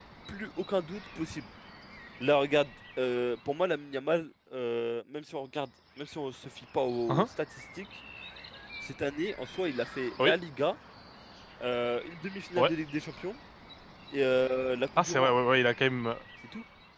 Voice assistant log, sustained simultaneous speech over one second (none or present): none